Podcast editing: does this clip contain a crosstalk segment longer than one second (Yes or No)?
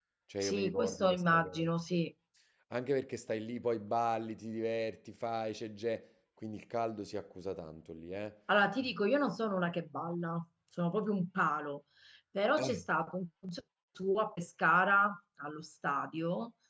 Yes